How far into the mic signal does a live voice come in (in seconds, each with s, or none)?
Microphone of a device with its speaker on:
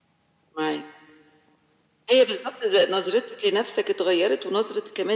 none